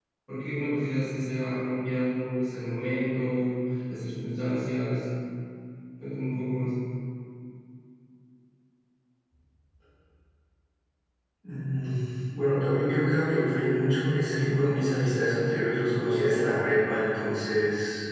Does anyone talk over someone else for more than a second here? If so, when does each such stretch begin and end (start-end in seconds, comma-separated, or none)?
none